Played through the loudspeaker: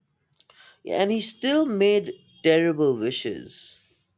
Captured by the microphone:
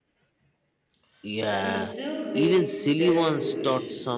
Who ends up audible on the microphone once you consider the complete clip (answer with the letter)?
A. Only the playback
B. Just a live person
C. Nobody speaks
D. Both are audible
D